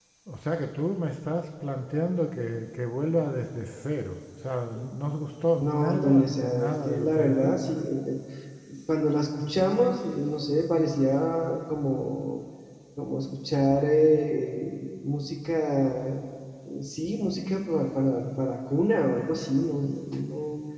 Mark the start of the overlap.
6 s

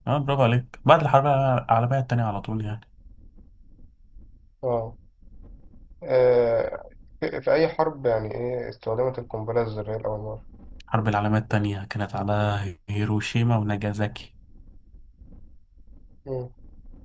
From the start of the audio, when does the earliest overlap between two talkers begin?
none

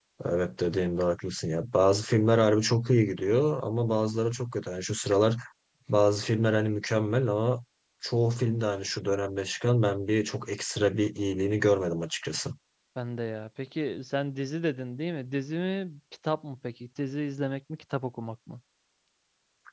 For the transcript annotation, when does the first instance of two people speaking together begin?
none

